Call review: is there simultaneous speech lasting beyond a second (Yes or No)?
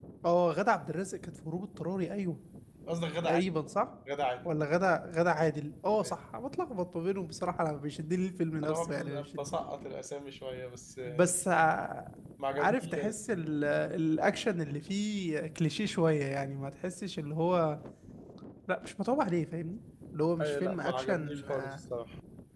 Yes